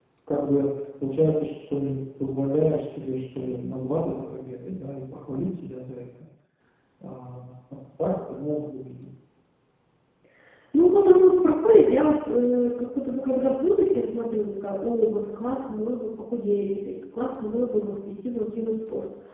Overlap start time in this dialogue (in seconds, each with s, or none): none